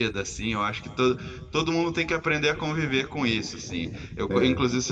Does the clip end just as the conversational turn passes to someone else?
No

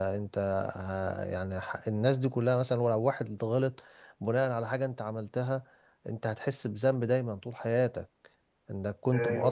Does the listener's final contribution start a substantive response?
Yes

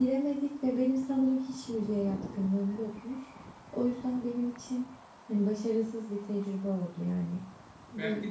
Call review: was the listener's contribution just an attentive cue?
No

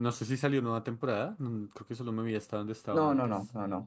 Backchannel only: No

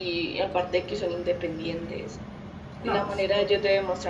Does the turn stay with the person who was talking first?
Yes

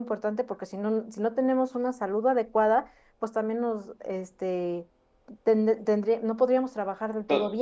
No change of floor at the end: No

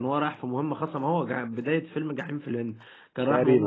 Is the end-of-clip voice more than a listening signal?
No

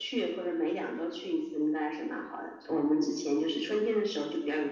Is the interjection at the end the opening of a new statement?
No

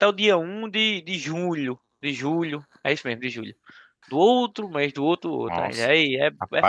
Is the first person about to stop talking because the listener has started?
Yes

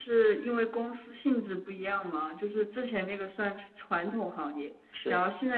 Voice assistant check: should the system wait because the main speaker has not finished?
Yes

